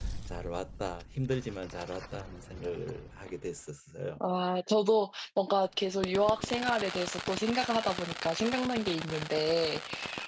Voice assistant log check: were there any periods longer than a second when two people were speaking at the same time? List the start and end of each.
none

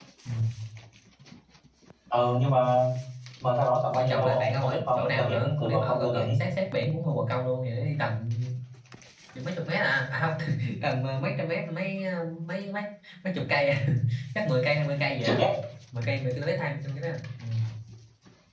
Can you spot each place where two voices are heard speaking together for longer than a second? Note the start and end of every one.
3.9-6.4

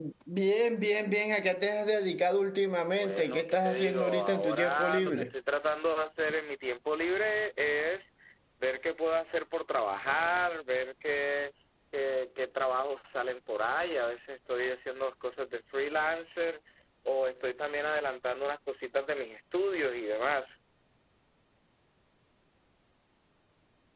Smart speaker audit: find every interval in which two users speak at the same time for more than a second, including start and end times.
3.0-5.2

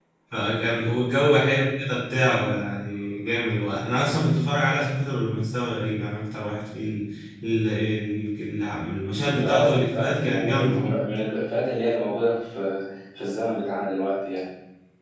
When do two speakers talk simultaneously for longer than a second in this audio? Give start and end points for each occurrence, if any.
9.4-10.6

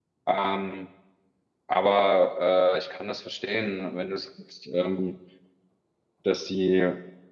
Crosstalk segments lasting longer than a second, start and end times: none

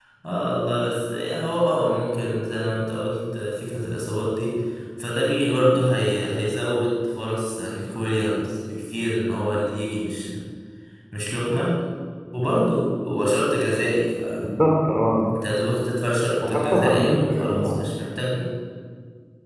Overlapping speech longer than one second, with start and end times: 16.5-17.7

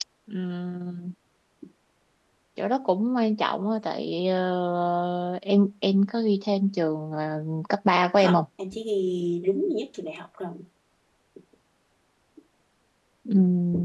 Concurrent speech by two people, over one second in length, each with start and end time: none

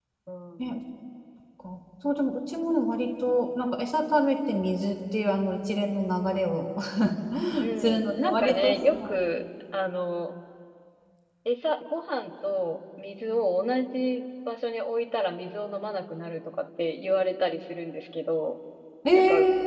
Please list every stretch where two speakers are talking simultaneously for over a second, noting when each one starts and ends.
7.8-9.2

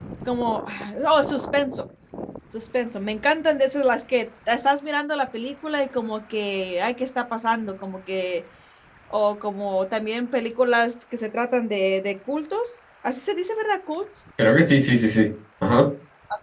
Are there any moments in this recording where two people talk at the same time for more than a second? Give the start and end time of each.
none

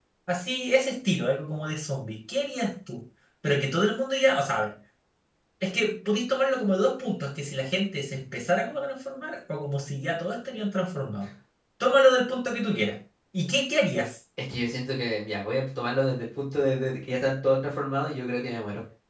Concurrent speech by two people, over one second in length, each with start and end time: none

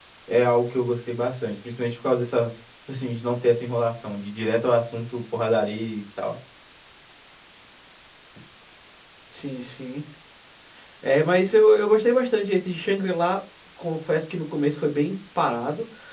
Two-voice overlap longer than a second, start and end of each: none

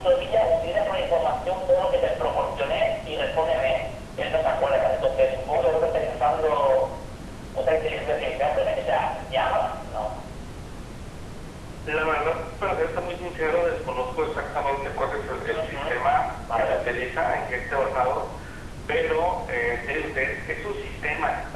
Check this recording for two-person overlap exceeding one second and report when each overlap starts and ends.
none

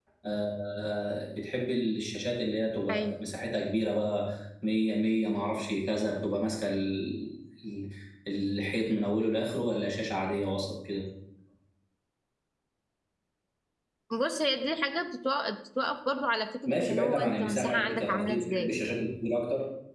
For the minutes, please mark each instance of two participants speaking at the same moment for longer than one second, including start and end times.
16.7-18.7

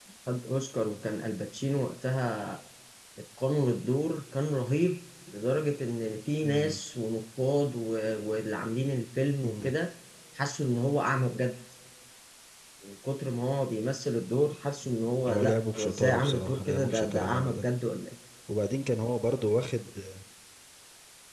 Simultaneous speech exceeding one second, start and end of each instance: 15.3-17.6

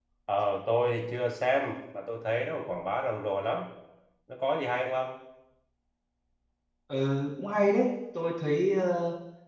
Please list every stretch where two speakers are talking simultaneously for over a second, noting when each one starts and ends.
none

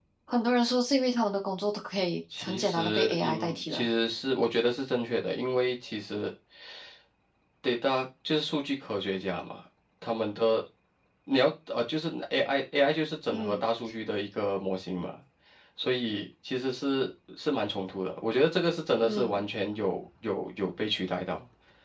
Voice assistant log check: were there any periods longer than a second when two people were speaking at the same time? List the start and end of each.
2.4-3.9

